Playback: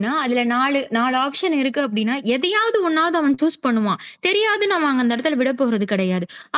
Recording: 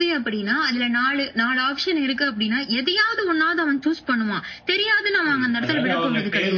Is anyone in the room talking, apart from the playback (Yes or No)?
Yes